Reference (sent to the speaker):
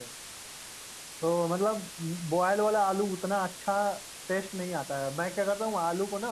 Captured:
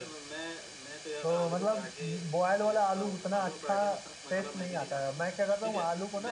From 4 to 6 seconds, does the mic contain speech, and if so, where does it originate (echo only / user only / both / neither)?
both